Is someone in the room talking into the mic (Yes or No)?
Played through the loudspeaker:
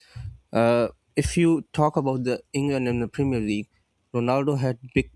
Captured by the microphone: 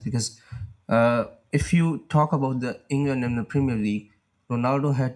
No